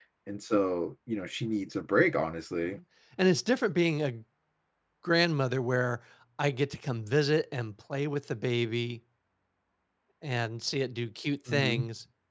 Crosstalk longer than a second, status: none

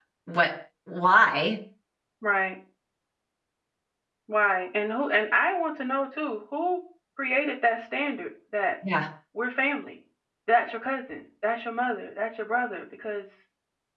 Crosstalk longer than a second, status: none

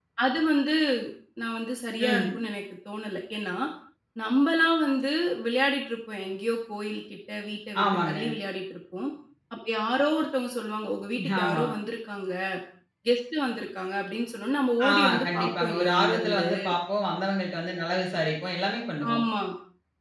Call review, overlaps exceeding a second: present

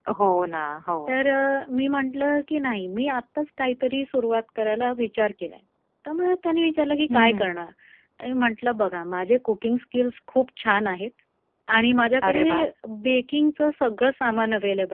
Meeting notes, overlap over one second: none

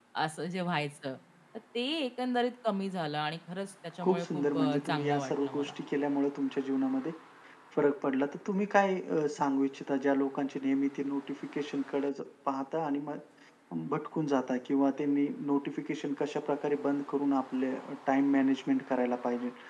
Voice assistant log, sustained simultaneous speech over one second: present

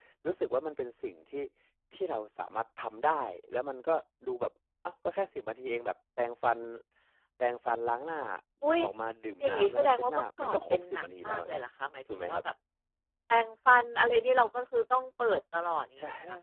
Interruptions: present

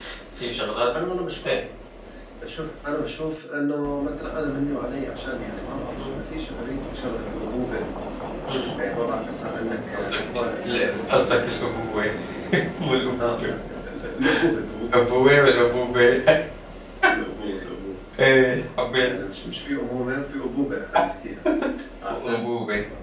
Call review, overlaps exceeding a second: present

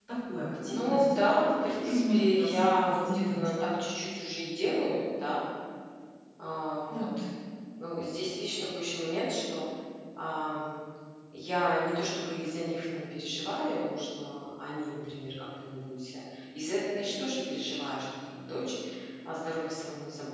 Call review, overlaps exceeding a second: present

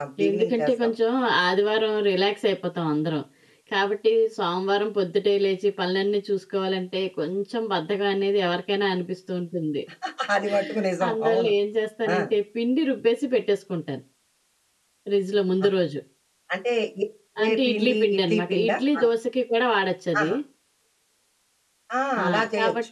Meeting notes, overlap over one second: present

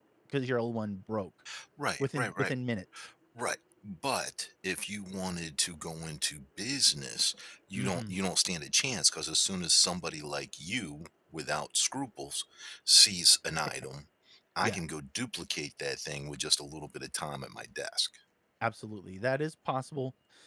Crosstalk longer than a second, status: none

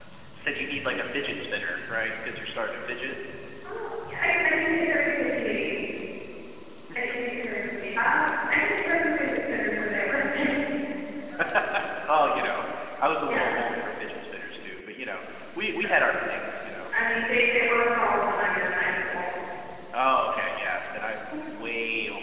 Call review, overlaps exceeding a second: none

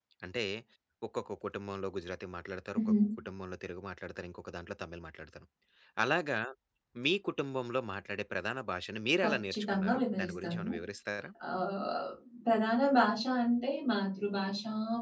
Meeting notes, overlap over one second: present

